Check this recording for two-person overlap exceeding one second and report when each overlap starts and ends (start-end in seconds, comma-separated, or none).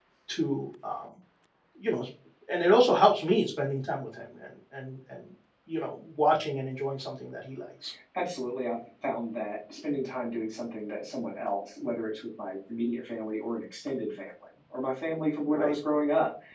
none